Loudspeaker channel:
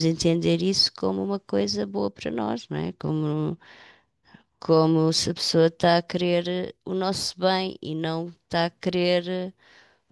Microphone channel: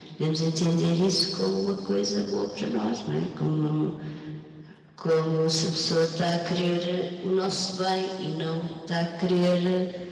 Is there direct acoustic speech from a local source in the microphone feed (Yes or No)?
No